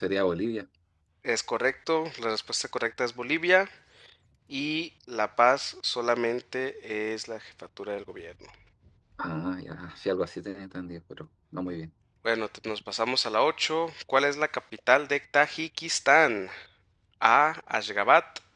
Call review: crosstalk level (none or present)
none